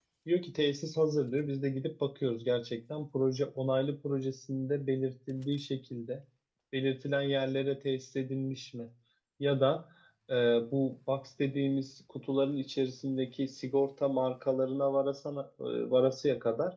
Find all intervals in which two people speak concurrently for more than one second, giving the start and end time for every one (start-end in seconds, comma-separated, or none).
none